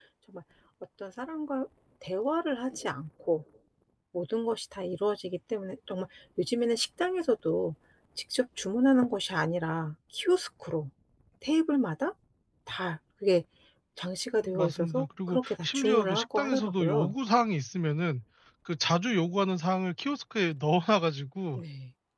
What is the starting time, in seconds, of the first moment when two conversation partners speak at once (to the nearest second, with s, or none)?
14 s